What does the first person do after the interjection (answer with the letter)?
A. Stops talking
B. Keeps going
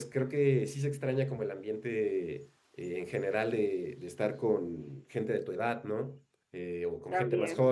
B